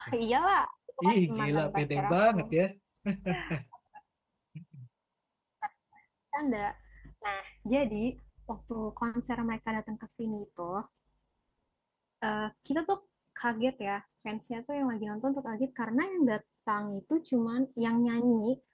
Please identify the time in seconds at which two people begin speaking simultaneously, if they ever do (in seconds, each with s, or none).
1.1 s